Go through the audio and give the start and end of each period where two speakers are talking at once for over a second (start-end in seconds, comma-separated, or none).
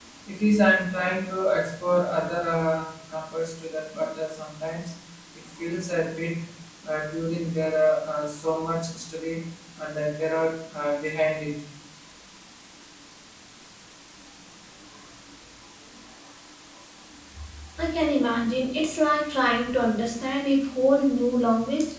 none